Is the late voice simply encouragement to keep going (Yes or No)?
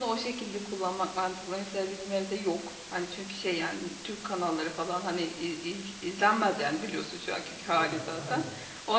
Yes